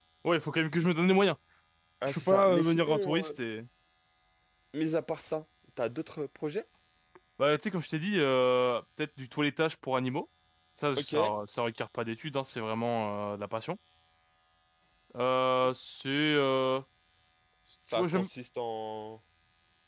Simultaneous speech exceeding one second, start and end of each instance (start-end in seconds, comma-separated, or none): 2.1-3.3